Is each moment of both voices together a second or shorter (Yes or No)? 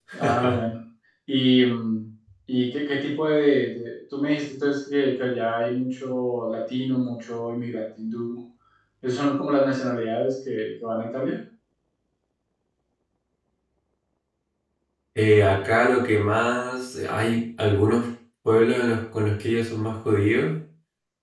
Yes